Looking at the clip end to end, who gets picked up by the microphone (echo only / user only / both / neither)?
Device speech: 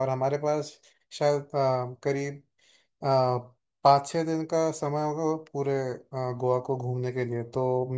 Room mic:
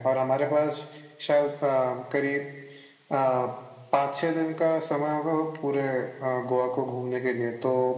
echo only